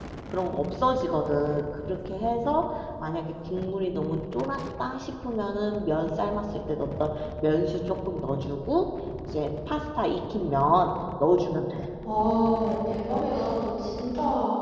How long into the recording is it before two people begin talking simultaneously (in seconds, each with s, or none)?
none